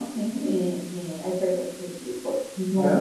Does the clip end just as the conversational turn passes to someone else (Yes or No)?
No